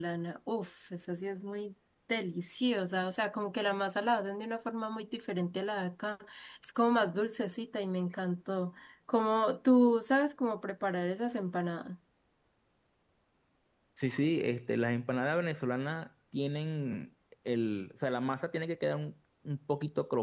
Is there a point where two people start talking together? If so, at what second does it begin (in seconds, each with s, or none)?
none